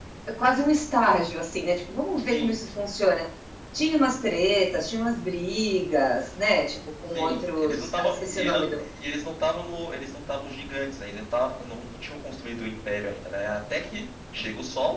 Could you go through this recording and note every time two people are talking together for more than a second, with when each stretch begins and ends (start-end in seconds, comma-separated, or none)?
7.1-8.8